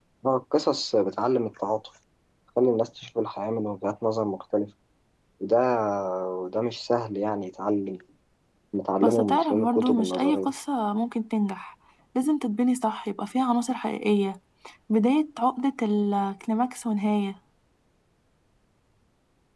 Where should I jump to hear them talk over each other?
9 s

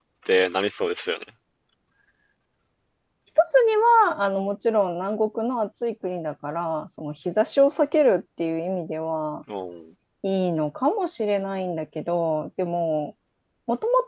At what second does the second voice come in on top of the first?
none

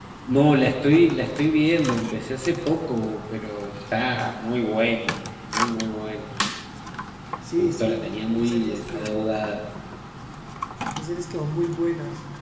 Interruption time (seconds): 8 s

